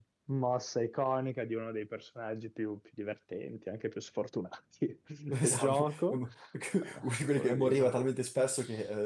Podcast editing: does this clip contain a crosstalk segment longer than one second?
Yes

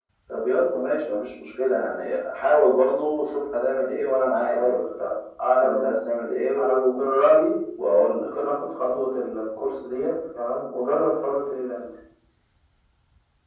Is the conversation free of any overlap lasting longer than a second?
Yes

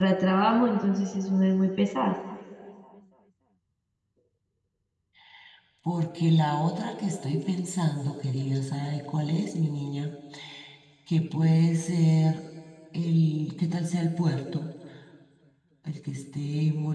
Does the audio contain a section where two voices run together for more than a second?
No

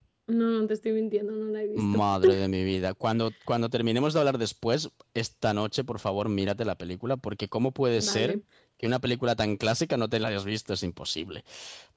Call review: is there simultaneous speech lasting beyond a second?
No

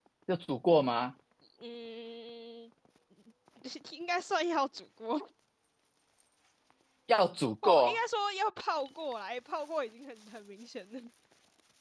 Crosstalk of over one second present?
No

